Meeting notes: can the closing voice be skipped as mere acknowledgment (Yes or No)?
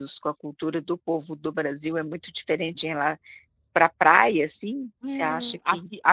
No